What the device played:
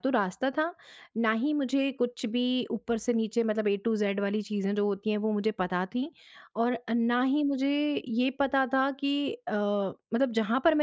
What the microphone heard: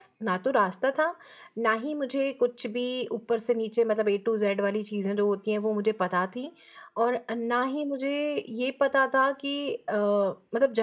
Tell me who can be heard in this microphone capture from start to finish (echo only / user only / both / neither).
echo only